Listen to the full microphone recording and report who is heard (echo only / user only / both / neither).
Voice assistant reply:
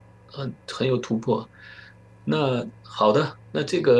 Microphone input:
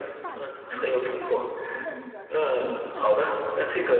both